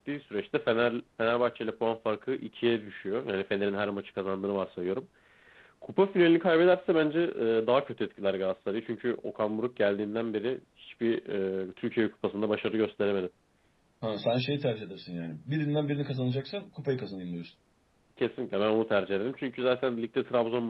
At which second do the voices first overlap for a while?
none

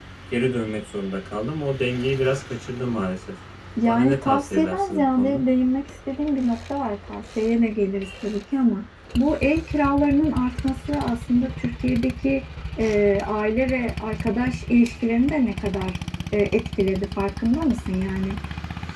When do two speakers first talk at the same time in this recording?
3.9 s

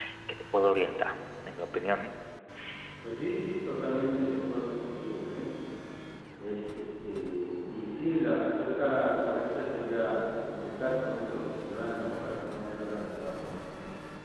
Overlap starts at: none

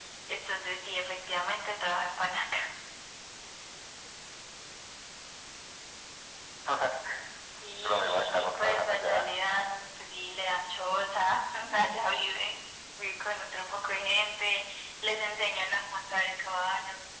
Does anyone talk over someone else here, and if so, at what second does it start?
7.8 s

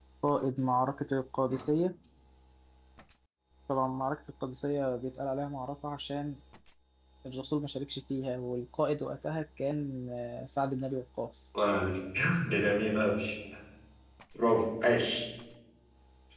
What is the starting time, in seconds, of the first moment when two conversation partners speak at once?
none

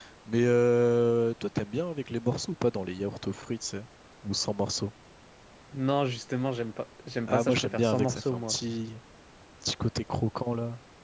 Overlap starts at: 7.2 s

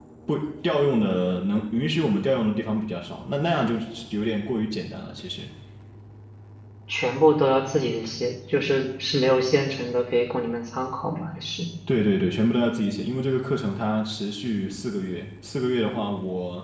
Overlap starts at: none

